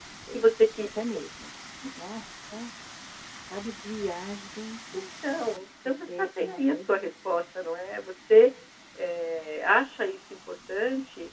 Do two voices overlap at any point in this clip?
Yes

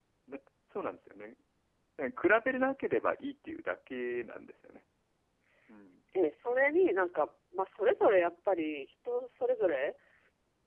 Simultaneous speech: No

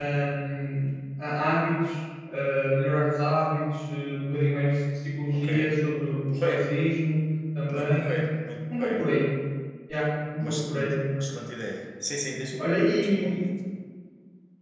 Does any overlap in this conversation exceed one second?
No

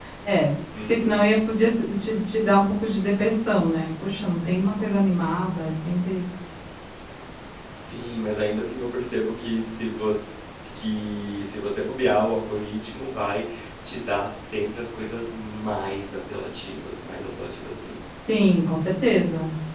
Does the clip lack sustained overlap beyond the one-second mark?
Yes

